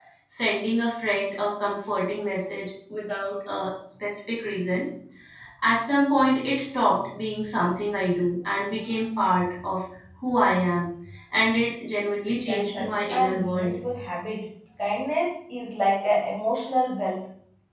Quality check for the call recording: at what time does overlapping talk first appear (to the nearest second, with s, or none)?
12 s